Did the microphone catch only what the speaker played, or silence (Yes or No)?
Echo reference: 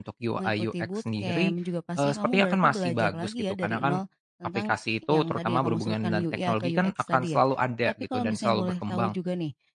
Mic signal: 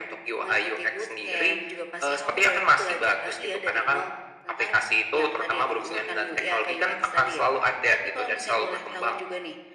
Yes